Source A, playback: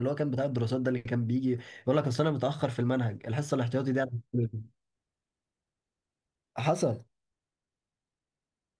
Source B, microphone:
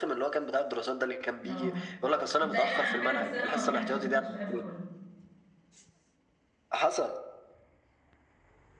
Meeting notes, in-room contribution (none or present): present